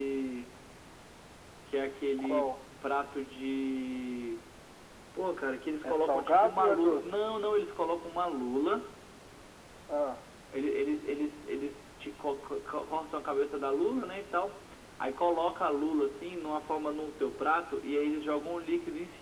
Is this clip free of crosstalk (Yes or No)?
No